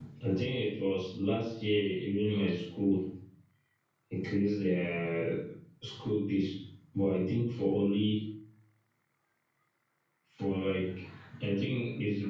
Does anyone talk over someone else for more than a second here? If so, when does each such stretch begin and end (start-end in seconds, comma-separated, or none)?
none